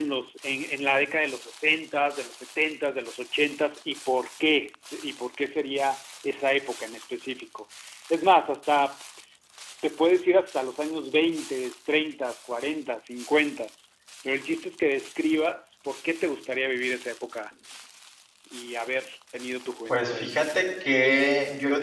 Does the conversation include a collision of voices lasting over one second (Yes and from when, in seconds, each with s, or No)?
No